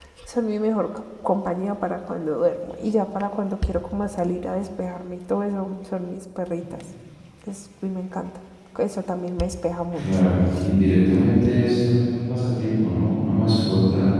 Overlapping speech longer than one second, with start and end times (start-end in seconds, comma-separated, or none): none